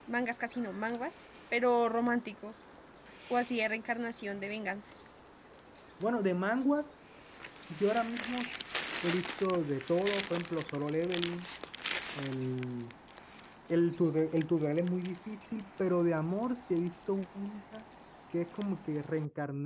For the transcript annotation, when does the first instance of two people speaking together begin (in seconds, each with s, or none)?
none